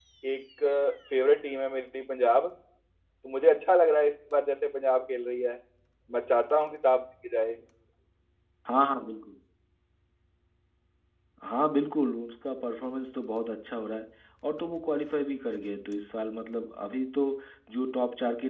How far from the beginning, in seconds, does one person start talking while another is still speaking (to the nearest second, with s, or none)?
none